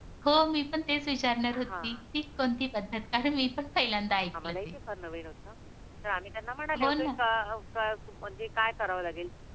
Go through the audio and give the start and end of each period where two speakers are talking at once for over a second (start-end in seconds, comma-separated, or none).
none